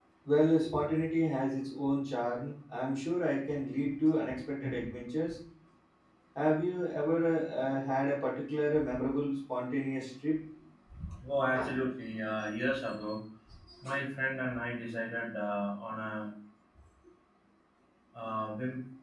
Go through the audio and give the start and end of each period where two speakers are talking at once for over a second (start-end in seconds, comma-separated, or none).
none